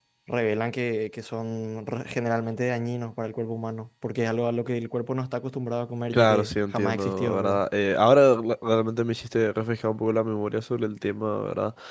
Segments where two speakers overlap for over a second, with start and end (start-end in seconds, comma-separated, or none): 6.1-7.6